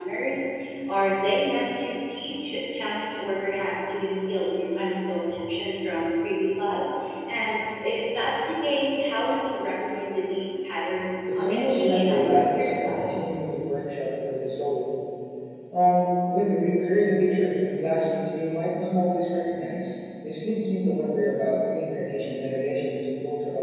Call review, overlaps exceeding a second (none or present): present